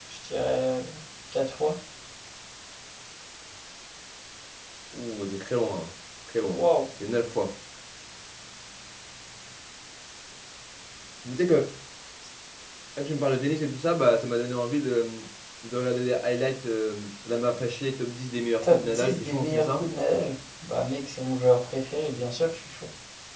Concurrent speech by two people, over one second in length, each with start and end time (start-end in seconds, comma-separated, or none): 18.6-19.9